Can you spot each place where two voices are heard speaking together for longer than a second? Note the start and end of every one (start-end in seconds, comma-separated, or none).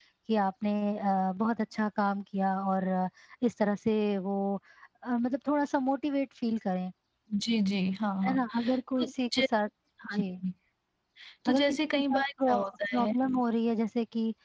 11.5-13.1